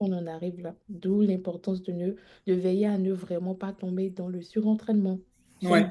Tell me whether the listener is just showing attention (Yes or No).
Yes